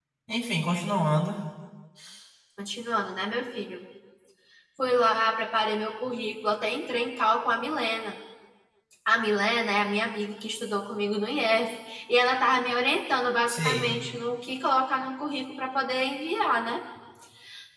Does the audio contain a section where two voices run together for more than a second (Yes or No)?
No